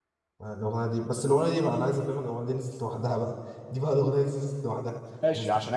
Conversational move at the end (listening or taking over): taking over